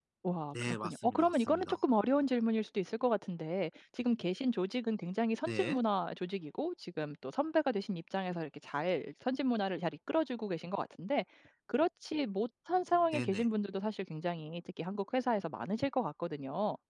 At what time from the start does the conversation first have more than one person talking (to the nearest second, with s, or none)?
1 s